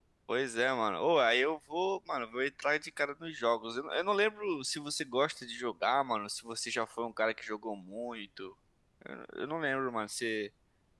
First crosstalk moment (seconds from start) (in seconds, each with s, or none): none